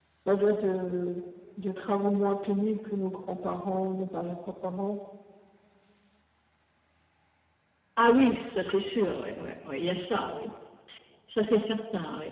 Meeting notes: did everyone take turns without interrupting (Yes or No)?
Yes